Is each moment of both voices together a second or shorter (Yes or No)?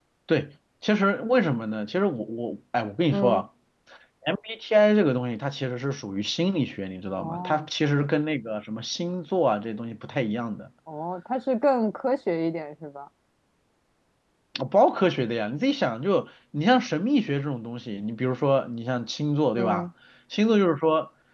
Yes